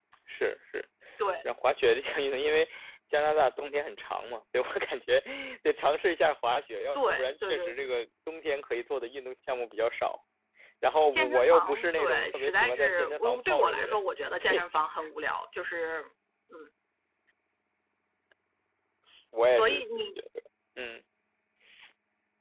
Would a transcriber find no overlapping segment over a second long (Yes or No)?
No